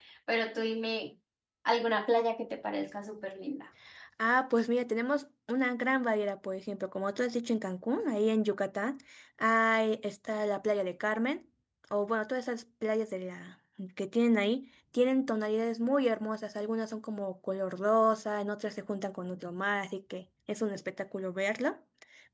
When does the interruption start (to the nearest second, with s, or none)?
none